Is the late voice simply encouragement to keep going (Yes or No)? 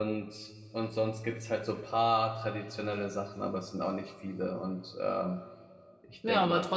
No